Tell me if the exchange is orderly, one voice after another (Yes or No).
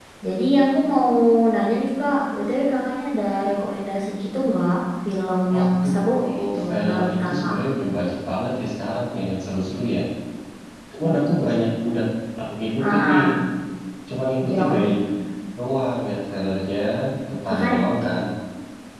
No